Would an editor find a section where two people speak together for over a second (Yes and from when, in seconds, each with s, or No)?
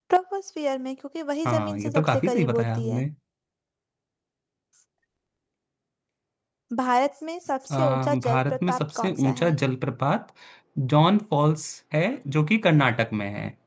Yes, from 1.5 s